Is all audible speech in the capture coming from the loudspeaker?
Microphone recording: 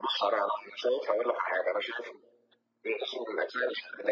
Yes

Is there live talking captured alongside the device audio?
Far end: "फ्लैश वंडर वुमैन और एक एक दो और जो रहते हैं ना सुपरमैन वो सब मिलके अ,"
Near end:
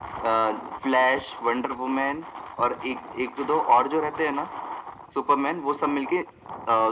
No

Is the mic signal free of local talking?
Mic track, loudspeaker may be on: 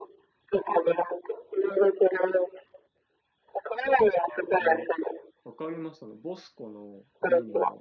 No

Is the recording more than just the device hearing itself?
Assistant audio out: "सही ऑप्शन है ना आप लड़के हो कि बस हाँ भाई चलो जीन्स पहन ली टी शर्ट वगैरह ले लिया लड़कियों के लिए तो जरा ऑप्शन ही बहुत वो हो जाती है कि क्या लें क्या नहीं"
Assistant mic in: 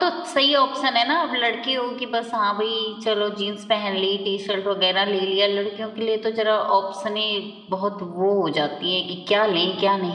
No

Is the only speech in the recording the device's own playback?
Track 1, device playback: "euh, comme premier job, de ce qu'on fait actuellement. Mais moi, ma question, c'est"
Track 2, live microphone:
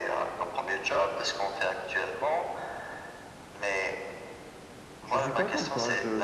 No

